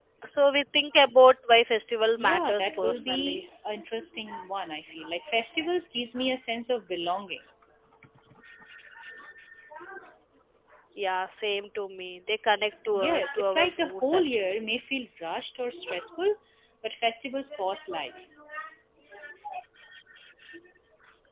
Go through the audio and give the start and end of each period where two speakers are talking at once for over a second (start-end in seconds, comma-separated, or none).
2.2-3.4, 12.9-14.6